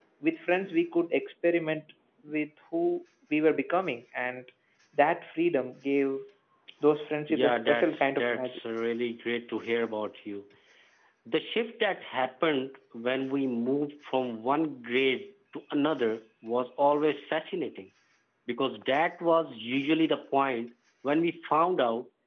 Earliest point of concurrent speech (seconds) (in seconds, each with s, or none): 7.3 s